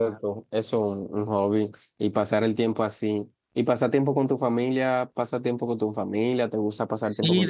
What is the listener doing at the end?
taking over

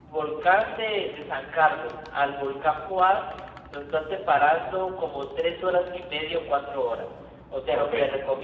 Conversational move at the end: listening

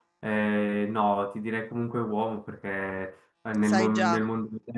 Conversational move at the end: listening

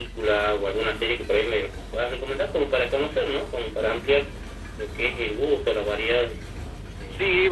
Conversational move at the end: taking over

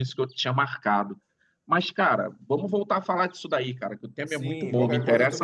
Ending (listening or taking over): taking over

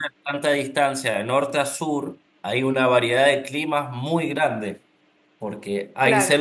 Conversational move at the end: listening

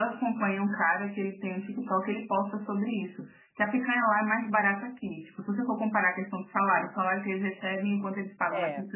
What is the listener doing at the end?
listening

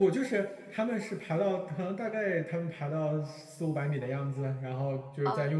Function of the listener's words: listening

